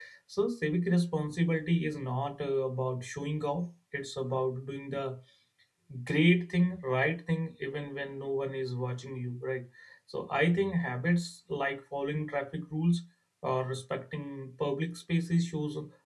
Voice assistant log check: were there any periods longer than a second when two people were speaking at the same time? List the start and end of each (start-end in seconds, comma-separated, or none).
none